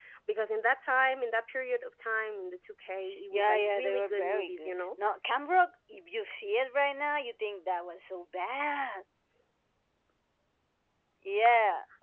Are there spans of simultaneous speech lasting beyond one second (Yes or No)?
Yes